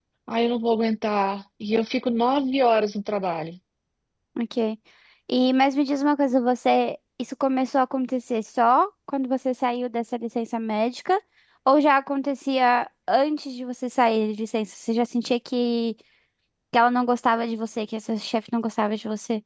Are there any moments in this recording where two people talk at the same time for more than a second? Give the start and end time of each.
none

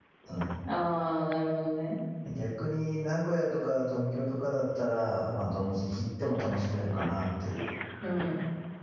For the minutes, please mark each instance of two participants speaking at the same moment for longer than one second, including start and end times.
none

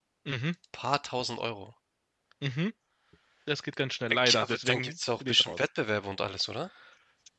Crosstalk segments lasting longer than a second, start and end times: 4.1-5.7

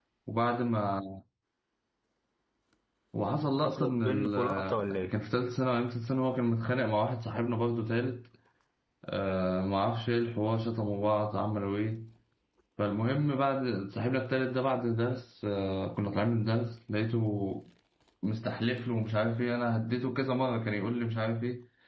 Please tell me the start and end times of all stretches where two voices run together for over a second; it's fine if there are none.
3.6-5.1

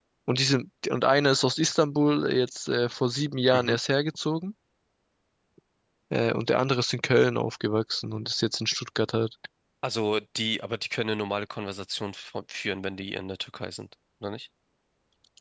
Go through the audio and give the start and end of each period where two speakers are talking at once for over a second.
none

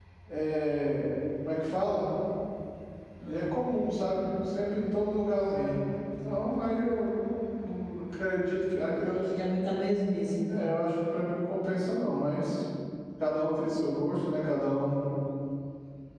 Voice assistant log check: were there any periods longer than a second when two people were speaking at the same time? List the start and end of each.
none

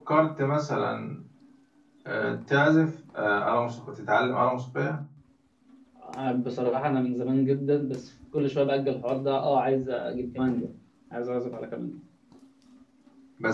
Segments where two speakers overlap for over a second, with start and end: none

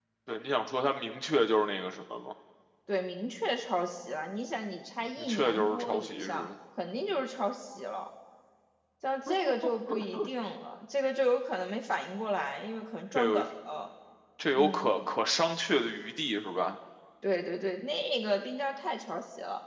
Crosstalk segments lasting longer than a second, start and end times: 5.2-6.5

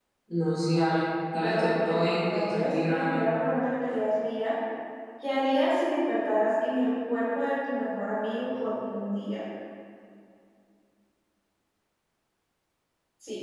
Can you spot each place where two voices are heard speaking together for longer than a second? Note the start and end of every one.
1.4-3.3

